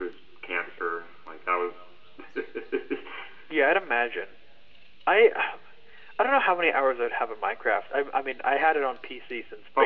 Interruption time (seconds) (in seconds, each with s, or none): none